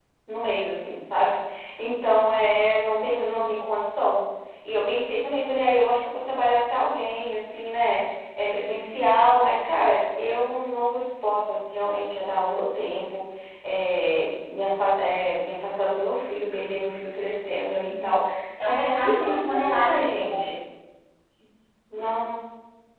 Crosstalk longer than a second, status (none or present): present